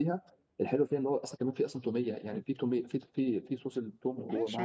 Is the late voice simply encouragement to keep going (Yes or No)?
No